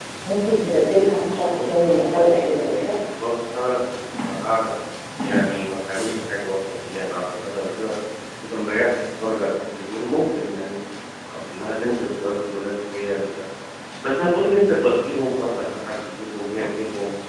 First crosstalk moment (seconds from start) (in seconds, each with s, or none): 1.5 s